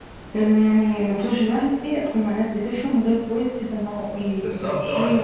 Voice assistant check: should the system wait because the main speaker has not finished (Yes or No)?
No